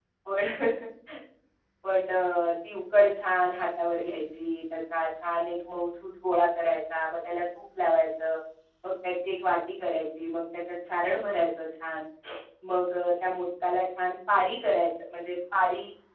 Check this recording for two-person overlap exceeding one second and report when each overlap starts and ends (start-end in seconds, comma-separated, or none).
none